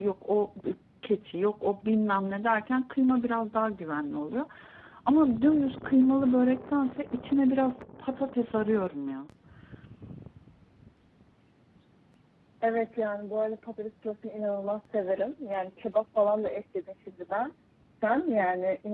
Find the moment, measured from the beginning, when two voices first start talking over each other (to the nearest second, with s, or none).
none